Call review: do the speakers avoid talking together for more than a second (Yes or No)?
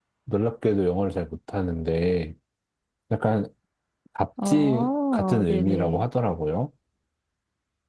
No